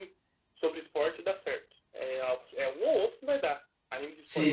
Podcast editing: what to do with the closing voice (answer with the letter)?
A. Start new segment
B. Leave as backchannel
A